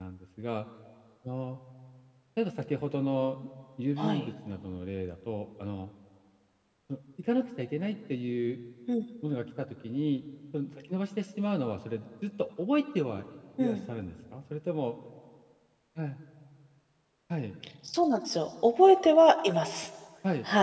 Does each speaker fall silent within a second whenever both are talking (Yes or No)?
Yes